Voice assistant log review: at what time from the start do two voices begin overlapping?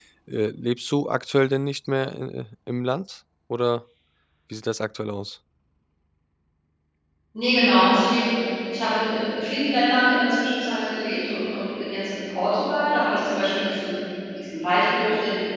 none

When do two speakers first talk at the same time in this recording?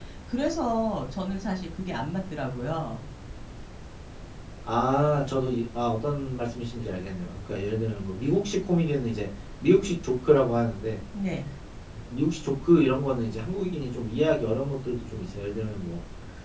none

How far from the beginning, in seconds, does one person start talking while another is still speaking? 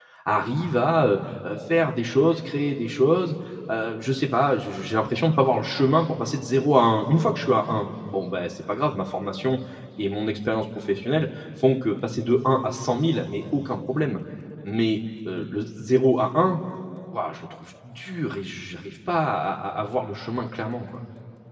none

